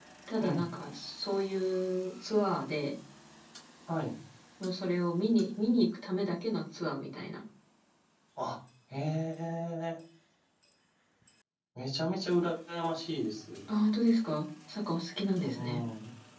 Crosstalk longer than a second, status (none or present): none